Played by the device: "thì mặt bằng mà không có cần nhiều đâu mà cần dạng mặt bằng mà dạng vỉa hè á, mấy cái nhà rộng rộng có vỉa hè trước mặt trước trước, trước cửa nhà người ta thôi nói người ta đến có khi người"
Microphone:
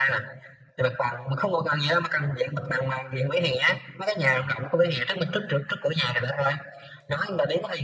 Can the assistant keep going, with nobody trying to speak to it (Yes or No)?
Yes